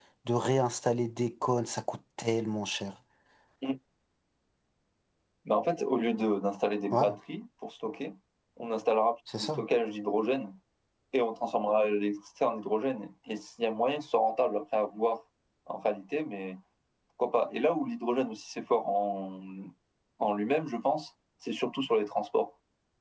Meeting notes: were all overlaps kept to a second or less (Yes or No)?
Yes